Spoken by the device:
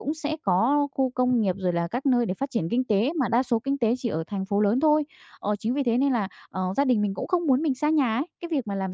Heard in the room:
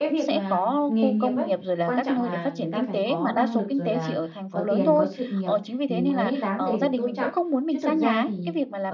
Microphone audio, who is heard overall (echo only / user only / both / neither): both